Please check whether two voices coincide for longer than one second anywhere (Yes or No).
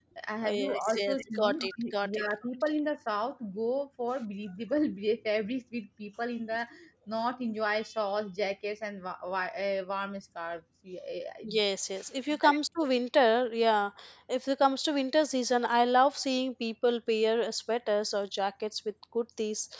Yes